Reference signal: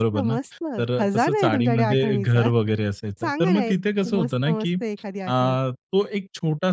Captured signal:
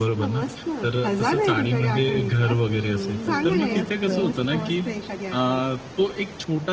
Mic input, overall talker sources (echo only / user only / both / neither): both